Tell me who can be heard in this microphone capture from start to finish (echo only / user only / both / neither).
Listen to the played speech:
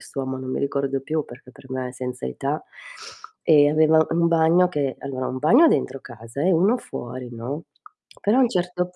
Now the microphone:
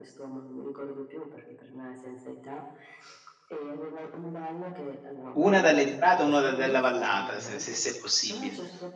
both